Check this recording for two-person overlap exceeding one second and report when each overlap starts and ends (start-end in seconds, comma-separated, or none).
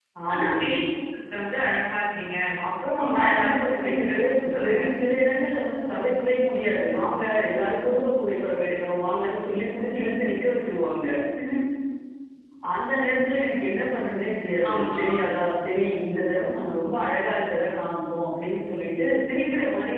3.0-4.8